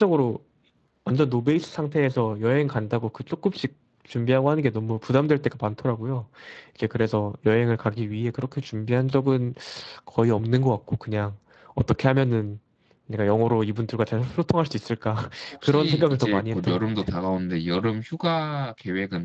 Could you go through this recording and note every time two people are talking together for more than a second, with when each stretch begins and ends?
15.6-17.1

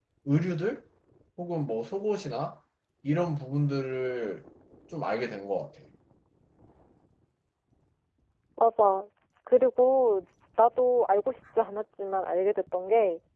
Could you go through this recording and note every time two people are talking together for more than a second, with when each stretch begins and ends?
none

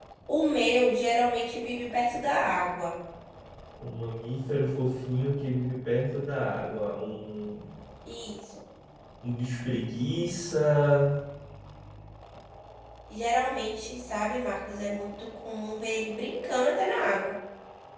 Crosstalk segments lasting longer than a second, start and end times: none

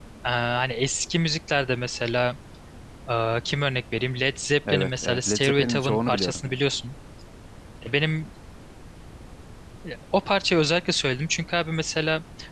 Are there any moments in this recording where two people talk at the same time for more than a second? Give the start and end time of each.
4.7-6.6

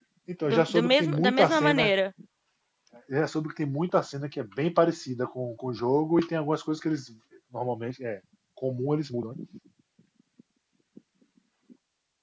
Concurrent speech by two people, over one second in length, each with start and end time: 0.5-1.9

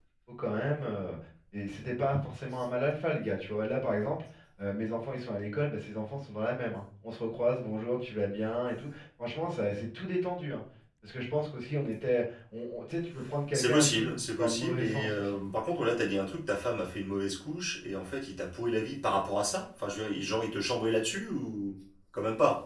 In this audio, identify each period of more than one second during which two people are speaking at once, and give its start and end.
13.5-15.4

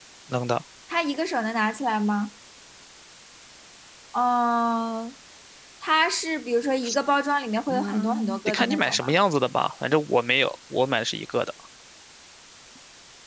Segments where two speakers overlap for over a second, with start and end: 7.7-9.1

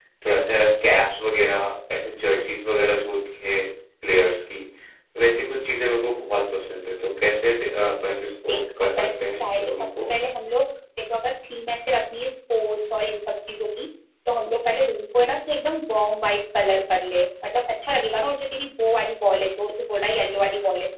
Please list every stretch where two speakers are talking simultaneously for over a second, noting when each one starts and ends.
8.5-9.8

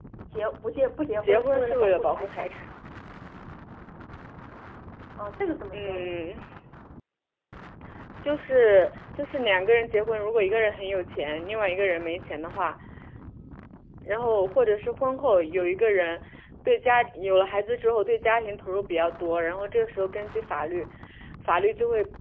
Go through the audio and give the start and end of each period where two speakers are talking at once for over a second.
1.2-2.5

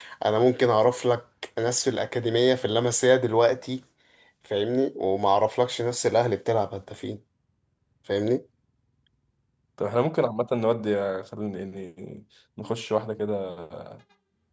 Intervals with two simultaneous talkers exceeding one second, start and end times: none

